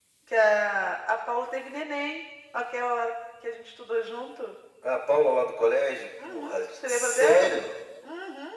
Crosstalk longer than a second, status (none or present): present